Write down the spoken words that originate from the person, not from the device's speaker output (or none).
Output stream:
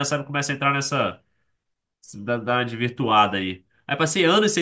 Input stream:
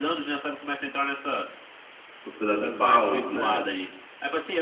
os pedaços de pau, né?